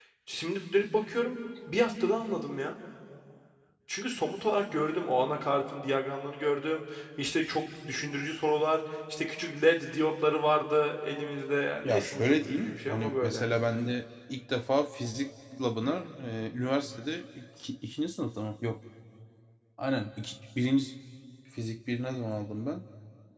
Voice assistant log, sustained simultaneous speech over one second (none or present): present